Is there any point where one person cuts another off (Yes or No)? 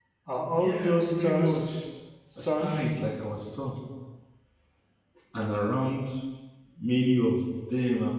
Yes